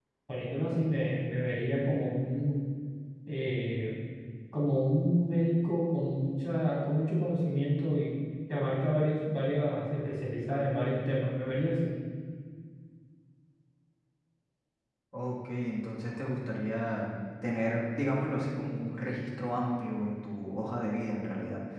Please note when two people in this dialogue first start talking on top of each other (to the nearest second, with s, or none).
none